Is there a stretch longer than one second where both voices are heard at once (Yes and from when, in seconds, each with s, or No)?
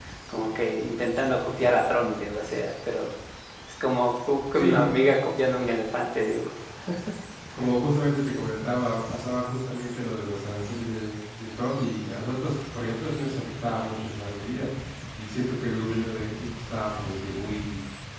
No